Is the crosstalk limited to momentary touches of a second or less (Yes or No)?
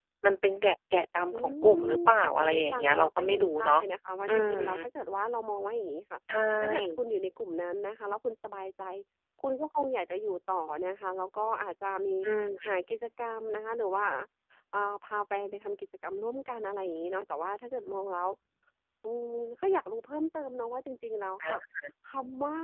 No